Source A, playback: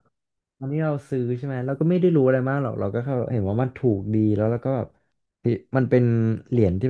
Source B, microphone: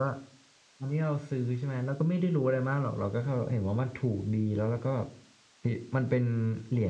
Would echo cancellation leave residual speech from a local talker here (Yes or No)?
No